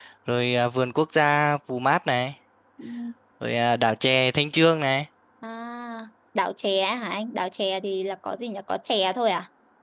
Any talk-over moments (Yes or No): No